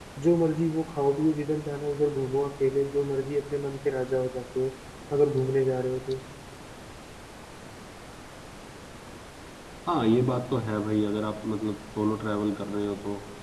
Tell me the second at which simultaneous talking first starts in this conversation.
none

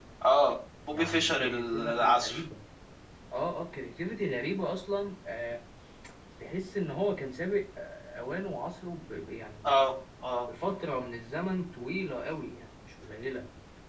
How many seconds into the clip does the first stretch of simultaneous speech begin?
0.9 s

